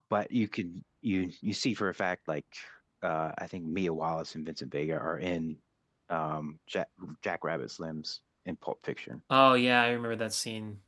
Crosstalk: none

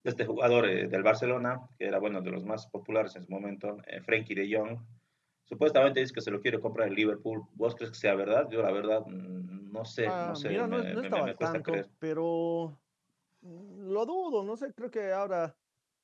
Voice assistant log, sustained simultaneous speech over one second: present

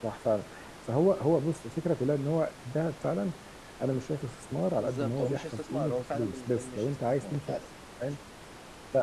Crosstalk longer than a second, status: present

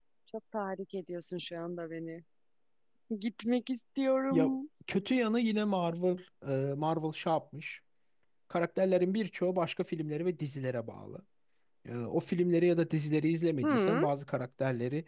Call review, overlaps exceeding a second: none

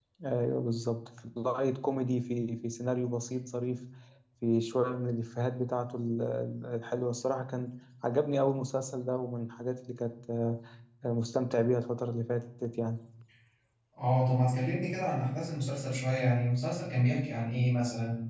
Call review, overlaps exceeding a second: none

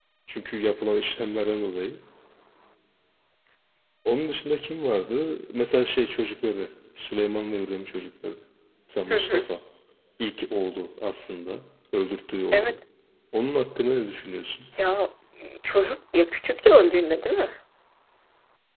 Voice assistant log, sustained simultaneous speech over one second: none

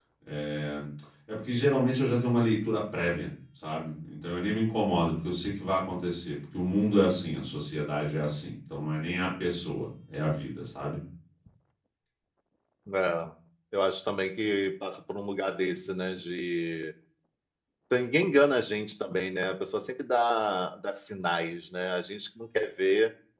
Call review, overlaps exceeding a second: none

